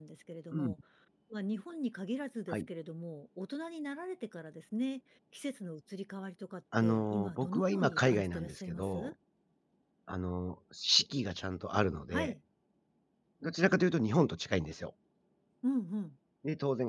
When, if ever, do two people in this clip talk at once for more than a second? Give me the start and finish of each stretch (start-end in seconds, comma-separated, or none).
6.8-9.1